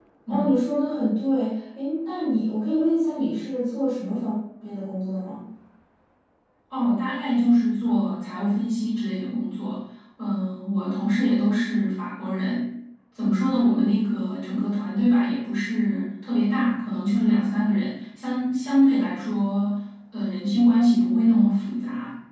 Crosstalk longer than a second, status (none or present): none